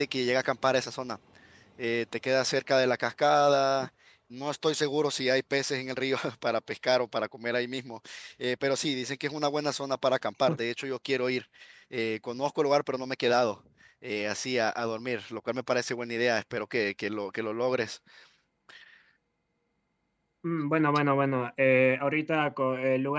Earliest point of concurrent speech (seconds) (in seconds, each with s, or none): none